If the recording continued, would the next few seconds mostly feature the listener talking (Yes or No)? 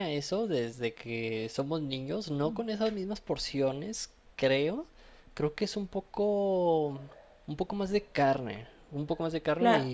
Yes